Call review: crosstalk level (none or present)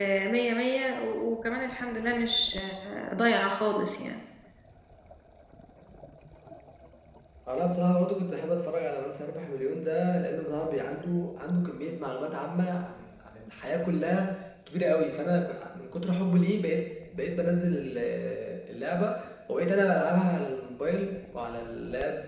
none